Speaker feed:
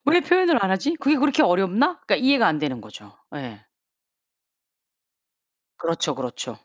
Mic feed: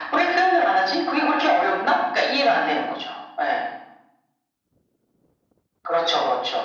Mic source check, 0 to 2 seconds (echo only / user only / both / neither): echo only